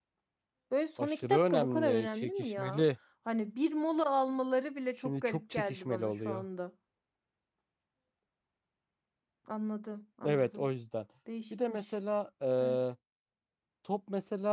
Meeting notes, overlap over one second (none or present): present